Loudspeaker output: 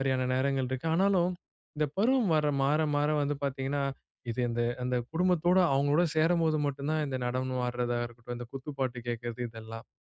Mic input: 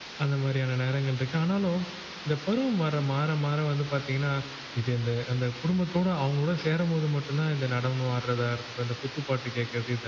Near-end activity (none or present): none